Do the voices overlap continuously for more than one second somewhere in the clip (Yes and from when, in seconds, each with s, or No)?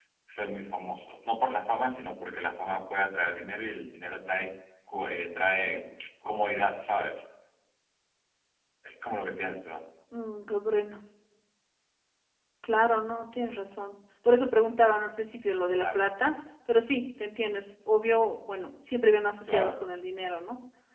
No